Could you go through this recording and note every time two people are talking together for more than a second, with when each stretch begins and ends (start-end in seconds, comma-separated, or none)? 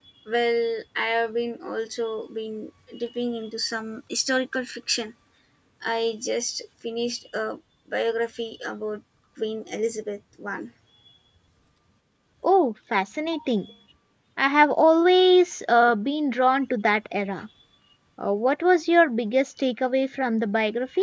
none